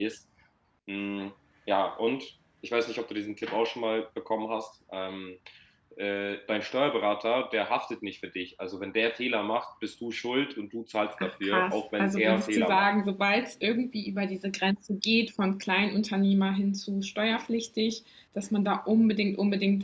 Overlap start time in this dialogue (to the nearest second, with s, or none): 11 s